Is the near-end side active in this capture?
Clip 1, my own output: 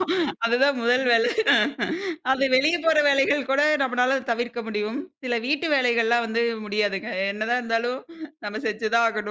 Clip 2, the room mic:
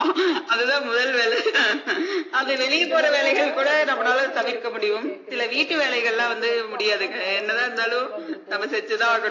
Yes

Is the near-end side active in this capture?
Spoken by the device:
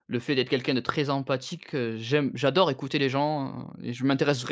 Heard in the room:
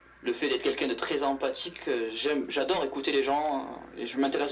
No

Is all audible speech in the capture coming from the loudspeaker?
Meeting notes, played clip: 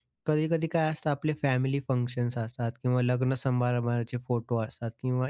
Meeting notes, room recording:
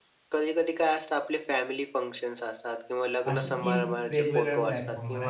No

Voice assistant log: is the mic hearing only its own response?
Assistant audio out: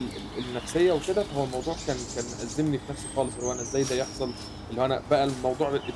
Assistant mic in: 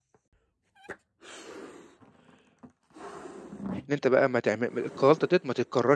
No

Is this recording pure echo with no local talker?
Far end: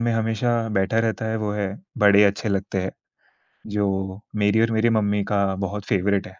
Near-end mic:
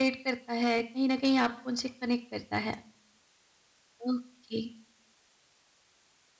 No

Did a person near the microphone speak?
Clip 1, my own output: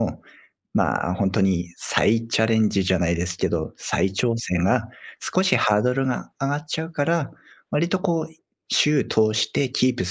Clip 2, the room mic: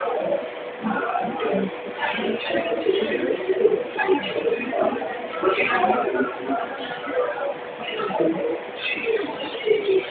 No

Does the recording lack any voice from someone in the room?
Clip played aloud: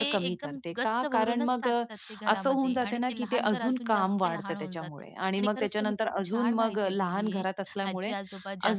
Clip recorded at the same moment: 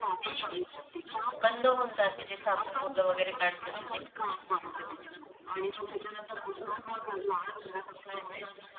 No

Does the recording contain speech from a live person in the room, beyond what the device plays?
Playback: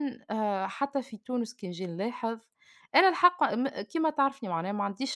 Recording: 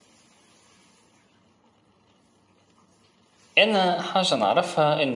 Yes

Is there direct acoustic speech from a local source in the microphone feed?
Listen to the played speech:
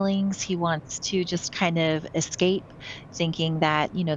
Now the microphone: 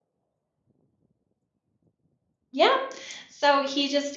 Yes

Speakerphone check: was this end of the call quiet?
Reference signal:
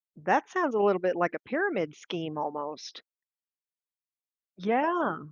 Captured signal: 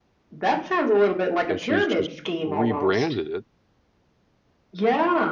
No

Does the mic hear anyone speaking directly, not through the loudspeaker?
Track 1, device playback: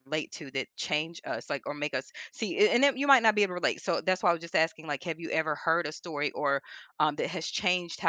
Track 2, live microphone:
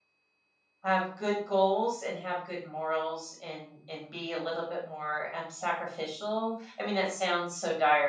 Yes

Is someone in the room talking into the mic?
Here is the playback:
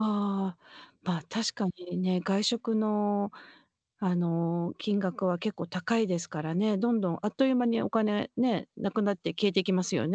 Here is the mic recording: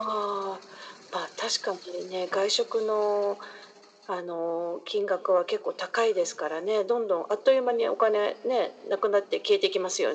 No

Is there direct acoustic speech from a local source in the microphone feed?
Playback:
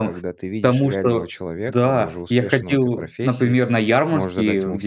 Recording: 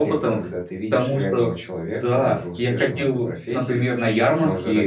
No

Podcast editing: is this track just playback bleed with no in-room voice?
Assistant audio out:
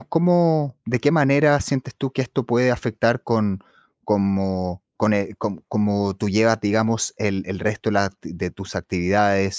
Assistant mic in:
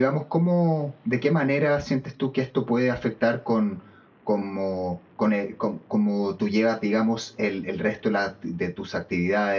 Yes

